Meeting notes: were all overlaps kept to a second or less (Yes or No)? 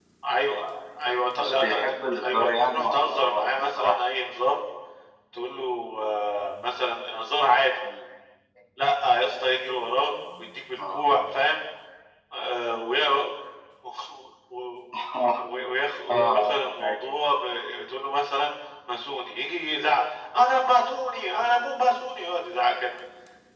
No